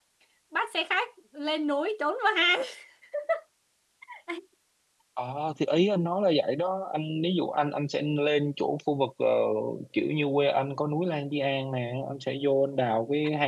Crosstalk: none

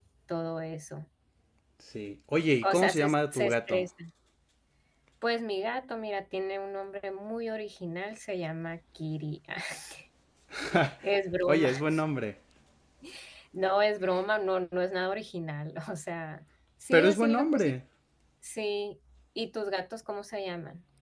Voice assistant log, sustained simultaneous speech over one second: present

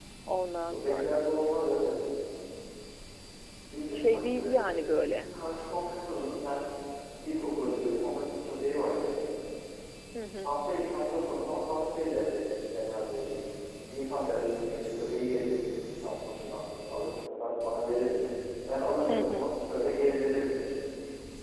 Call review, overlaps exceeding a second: present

